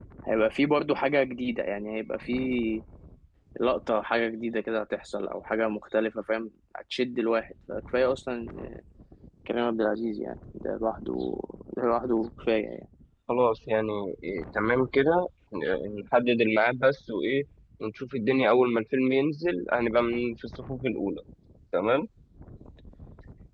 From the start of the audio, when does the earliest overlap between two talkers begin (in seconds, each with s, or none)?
none